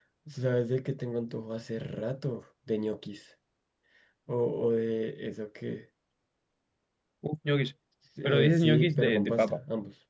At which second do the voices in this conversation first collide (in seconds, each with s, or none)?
8.2 s